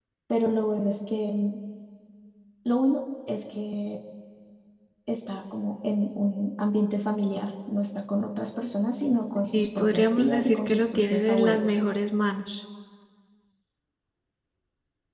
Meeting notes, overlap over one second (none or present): present